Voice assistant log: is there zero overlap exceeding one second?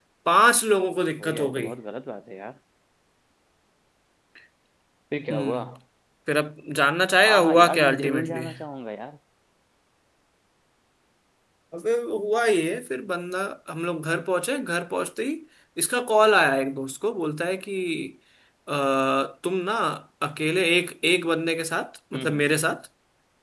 No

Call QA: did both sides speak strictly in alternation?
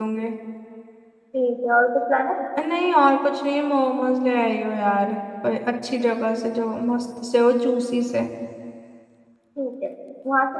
Yes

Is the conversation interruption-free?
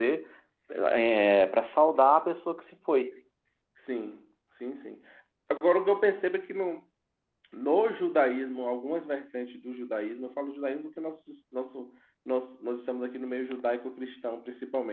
Yes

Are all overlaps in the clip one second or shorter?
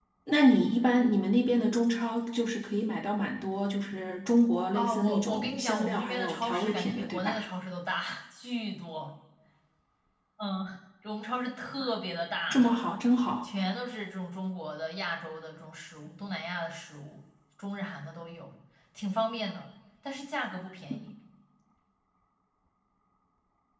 No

